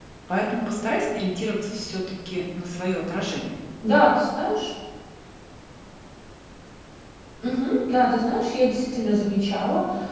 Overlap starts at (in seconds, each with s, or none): none